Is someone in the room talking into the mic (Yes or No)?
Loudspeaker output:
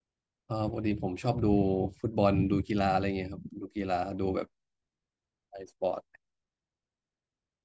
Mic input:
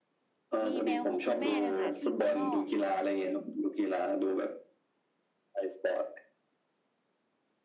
Yes